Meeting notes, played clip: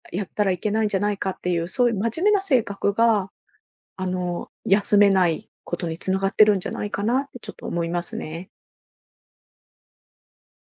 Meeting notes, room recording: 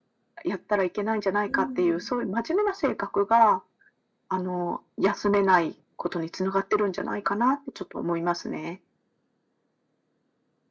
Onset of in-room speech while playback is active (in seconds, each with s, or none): 1.4 s